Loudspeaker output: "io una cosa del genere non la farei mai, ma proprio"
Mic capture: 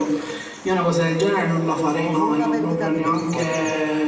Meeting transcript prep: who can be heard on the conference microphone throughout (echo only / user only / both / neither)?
both